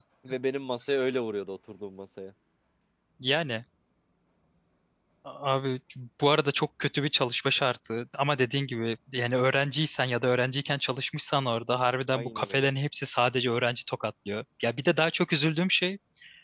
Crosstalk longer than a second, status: none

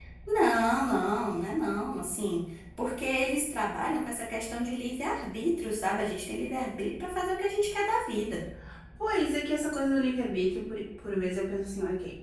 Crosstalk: none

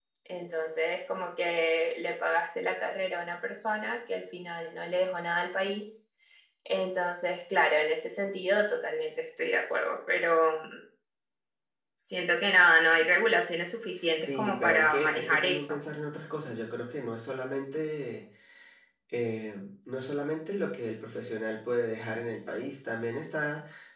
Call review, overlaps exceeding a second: present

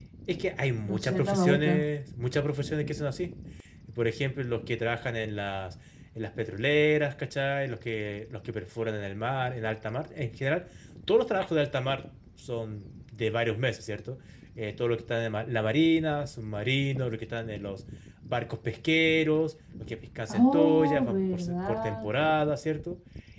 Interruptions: present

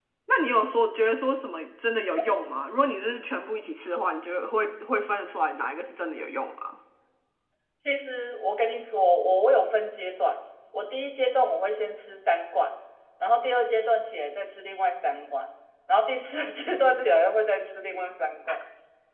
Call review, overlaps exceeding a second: none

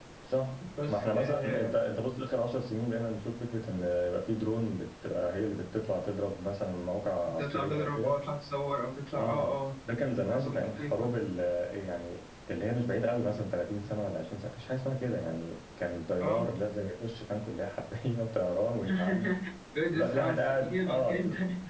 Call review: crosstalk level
present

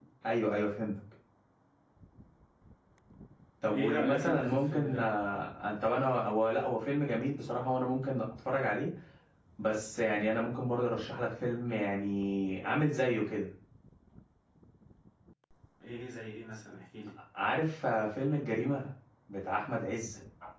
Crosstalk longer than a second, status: present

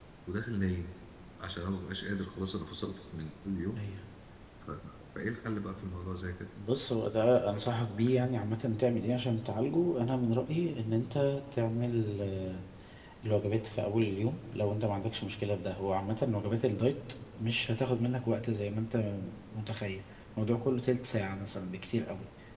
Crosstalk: none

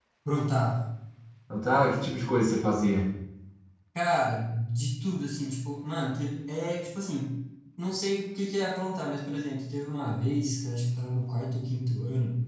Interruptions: none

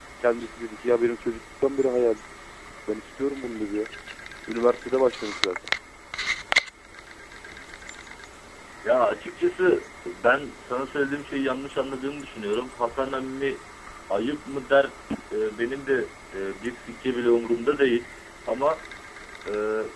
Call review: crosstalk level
none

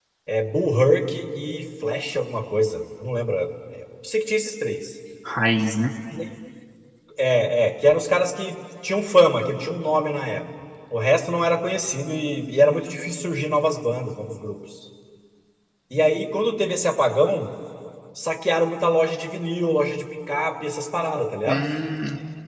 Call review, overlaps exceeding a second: none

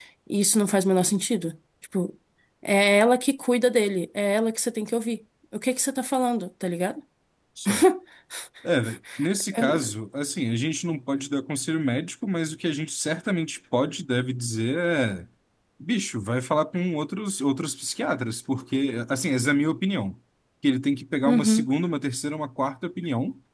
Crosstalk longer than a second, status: none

